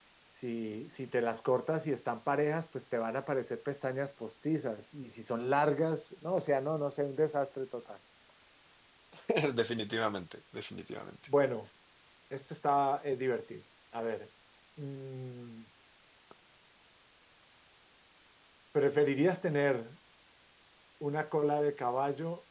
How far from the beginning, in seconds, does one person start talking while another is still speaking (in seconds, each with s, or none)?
none